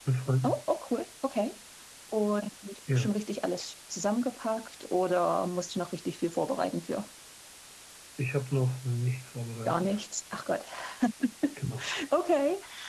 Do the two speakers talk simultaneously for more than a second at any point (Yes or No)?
No